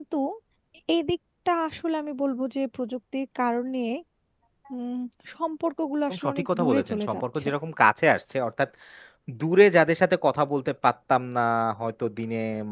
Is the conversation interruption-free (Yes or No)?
No